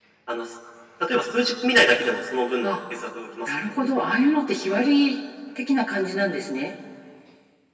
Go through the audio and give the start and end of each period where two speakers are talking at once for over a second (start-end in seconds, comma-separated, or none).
none